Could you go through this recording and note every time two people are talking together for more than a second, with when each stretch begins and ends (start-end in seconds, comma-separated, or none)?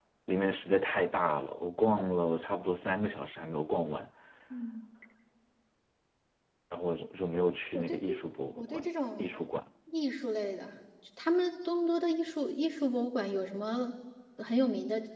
none